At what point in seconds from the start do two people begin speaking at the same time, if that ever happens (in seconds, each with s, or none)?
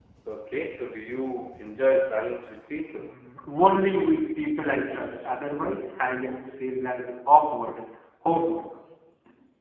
none